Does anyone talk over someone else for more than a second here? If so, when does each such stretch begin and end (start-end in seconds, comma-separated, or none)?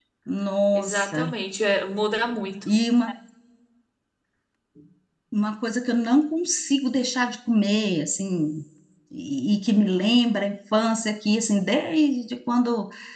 none